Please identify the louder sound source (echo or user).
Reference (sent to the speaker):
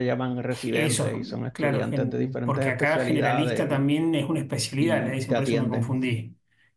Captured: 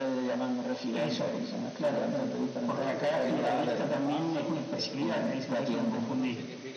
echo